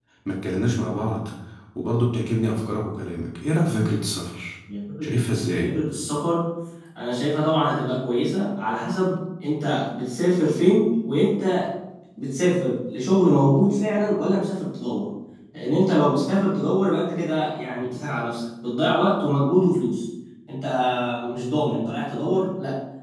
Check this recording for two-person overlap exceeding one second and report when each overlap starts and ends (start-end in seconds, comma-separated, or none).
none